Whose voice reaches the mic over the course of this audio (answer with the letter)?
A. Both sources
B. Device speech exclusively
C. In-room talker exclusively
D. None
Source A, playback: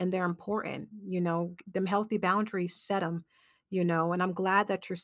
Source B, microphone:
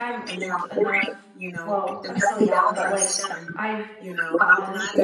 A